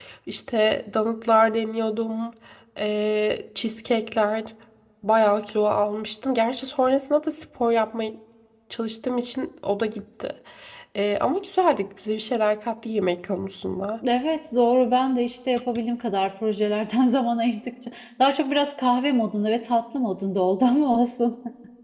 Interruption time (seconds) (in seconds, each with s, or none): none